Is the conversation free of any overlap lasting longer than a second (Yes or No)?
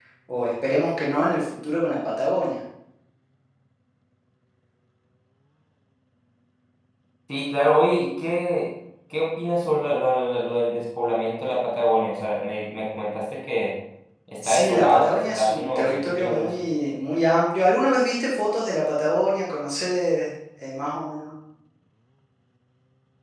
No